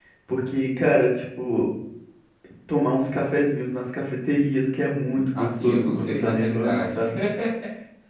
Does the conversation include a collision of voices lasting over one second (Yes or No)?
Yes